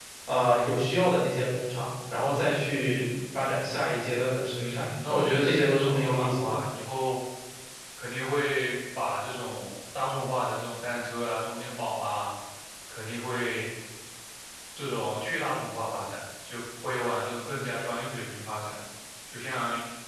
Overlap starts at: 5 s

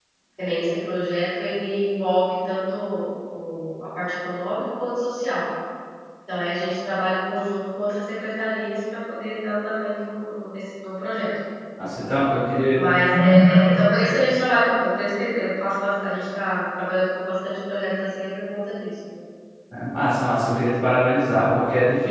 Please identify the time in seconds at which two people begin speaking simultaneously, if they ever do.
none

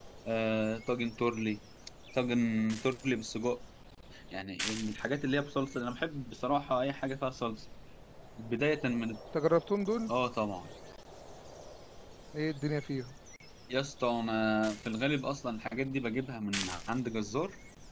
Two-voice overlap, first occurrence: none

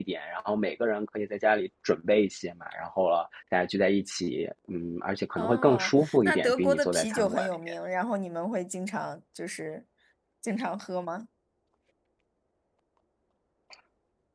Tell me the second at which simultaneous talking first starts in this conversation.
5 s

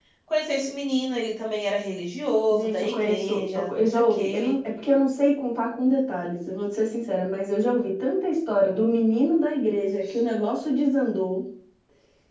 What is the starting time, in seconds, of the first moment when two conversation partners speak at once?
2 s

